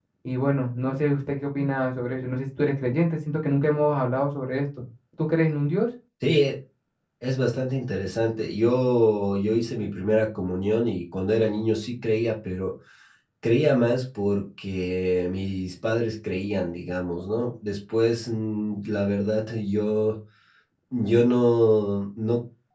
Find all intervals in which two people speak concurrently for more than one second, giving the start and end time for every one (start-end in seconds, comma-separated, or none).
none